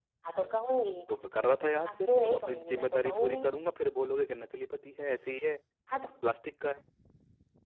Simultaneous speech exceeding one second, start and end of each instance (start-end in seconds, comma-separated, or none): 1.8-3.4